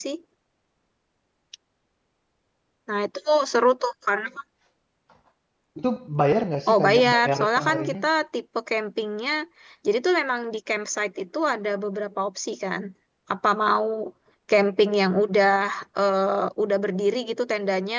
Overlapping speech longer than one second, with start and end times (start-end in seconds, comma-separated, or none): 6.7-8.0